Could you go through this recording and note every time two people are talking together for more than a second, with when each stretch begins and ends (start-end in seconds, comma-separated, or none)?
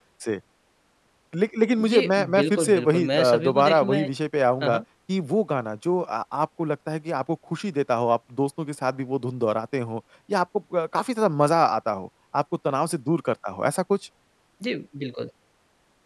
1.8-4.0